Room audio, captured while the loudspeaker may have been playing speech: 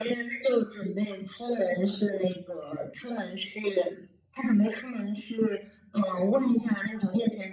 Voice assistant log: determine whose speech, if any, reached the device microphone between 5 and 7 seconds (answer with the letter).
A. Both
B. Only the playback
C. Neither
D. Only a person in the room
B